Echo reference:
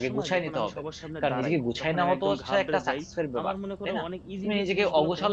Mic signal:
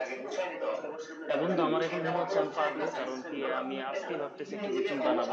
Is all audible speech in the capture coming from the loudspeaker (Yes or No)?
No